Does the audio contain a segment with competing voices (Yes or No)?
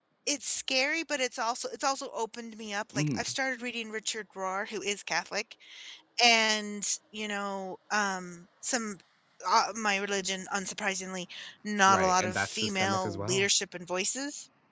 Yes